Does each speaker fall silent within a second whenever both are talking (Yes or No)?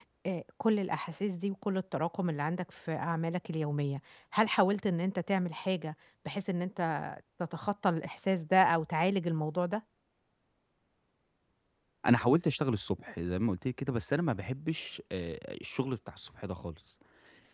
Yes